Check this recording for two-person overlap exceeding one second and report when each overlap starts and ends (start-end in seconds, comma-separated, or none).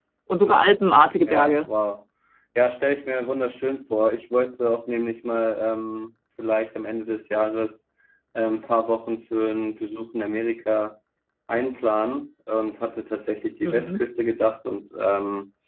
none